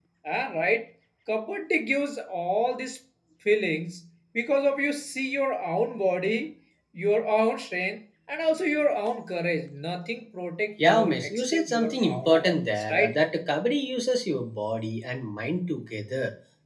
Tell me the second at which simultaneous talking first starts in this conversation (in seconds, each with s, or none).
10.8 s